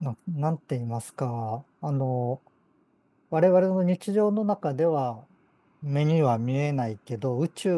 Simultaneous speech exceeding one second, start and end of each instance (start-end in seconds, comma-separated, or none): none